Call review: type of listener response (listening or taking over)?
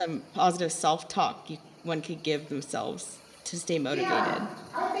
taking over